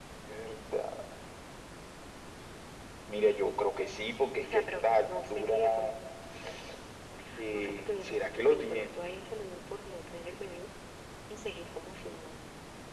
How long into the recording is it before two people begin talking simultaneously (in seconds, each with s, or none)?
4.4 s